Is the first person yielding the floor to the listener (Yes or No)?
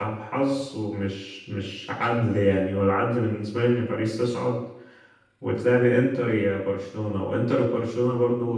No